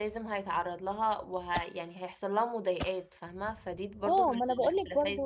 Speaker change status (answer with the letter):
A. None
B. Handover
B